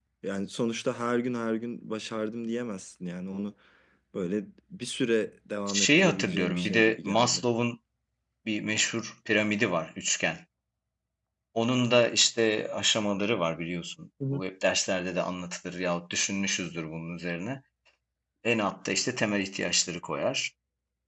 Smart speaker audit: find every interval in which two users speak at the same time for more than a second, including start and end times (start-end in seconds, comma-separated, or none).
5.7-7.4